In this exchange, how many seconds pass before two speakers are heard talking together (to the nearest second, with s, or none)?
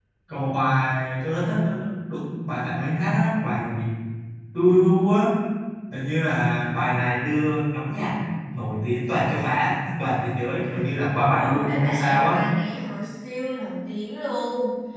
11 s